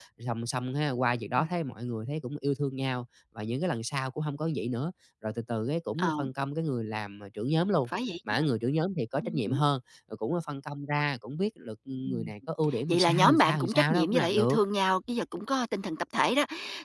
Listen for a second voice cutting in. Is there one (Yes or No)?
Yes